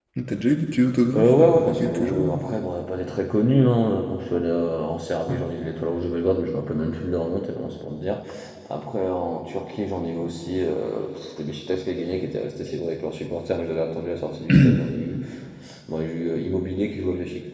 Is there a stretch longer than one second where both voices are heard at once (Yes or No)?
Yes